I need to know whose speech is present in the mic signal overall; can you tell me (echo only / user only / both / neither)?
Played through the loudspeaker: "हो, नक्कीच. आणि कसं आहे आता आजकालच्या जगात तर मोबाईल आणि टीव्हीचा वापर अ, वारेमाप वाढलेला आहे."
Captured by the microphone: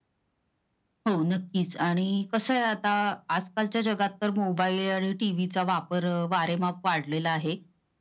echo only